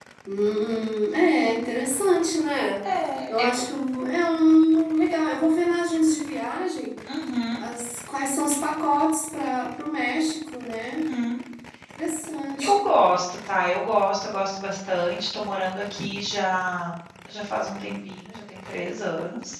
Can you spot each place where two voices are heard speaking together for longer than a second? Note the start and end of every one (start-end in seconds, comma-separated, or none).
none